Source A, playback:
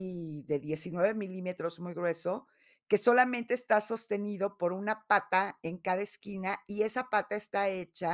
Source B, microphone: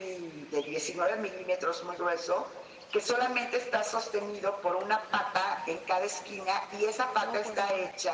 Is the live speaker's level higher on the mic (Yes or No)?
No